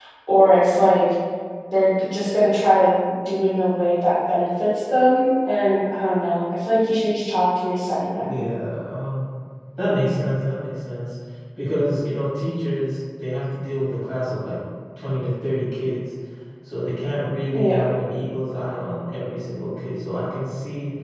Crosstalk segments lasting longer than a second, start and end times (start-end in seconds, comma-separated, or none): none